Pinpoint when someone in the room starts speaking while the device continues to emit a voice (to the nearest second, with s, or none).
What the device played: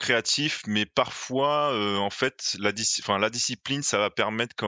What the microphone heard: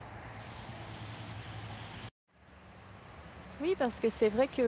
4 s